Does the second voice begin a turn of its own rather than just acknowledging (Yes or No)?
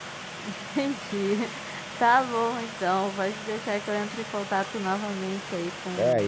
Yes